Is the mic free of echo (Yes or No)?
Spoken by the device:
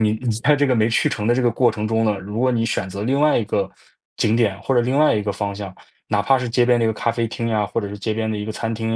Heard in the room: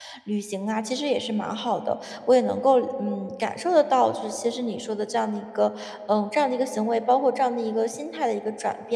Yes